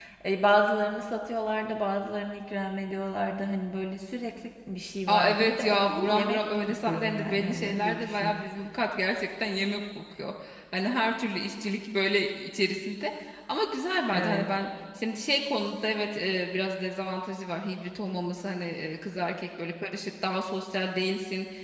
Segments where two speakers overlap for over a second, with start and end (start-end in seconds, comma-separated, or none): 5.1-8.3